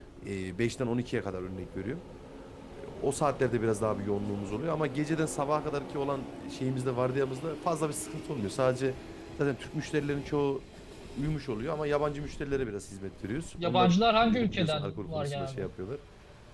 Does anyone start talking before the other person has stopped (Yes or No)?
Yes